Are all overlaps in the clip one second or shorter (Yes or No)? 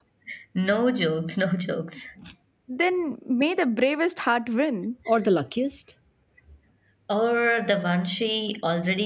Yes